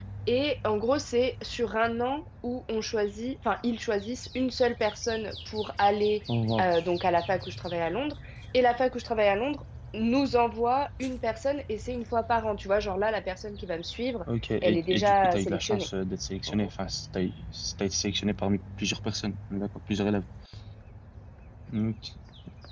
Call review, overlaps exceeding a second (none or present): present